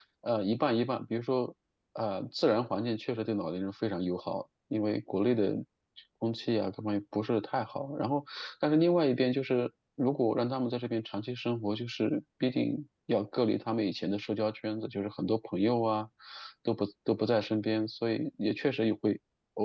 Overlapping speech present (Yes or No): No